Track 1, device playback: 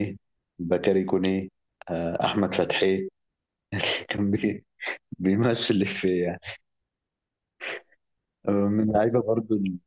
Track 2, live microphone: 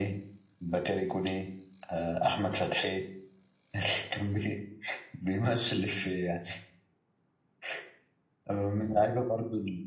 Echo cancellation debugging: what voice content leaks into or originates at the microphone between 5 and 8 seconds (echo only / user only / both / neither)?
echo only